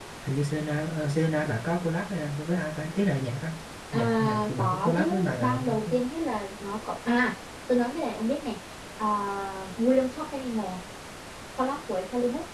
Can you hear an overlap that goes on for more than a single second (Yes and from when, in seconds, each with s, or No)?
Yes, from 3.9 s